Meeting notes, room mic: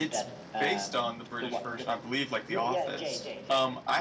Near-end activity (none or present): present